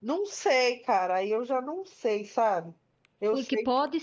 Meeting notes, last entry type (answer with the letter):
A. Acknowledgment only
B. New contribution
B